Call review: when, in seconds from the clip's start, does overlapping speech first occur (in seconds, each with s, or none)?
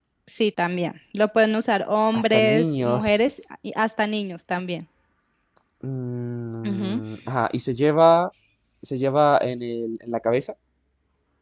2.1 s